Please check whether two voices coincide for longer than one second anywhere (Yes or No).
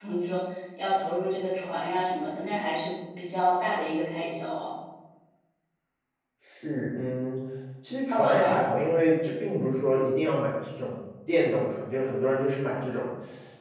No